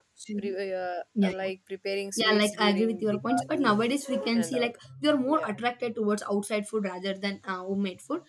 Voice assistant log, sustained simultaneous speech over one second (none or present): present